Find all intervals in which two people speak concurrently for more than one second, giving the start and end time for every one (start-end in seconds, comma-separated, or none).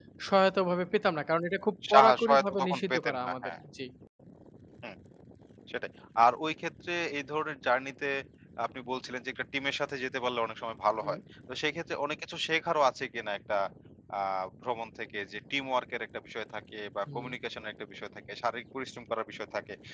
1.9-3.5